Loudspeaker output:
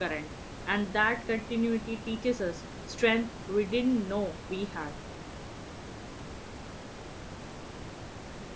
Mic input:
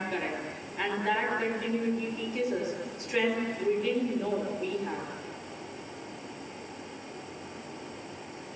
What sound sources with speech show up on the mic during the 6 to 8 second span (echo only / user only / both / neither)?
neither